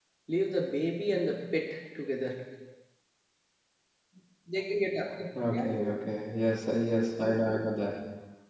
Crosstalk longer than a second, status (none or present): none